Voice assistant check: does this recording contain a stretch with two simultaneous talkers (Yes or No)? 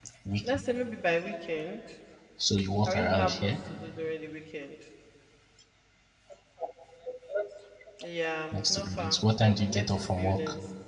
Yes